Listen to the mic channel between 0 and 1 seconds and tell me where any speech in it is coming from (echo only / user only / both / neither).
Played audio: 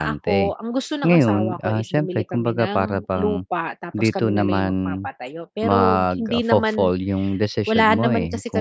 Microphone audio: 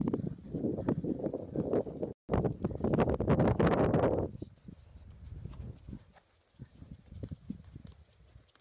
neither